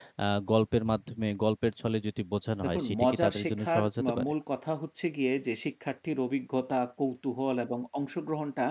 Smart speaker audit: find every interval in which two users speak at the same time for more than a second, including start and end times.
2.6-4.2

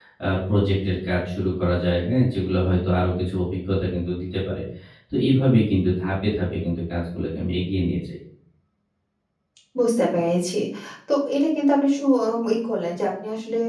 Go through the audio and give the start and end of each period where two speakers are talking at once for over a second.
none

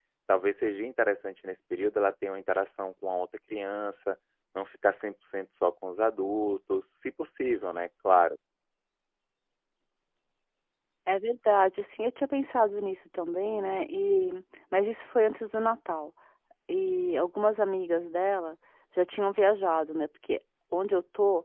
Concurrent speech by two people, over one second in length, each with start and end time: none

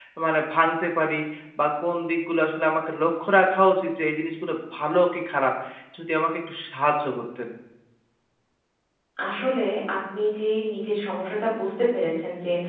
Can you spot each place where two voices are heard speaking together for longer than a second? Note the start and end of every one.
none

